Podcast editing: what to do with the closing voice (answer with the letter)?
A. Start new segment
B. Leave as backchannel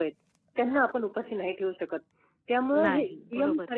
B